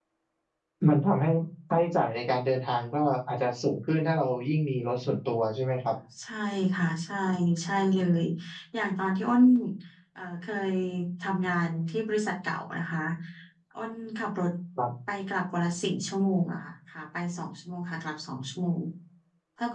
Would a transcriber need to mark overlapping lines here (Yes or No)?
No